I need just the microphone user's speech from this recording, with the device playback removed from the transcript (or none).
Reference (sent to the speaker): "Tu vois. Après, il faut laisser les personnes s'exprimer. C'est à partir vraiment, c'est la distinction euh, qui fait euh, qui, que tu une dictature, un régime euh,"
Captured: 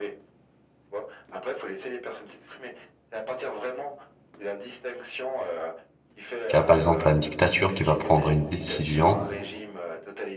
Tu as par exemple une dictature qui va prendre une décision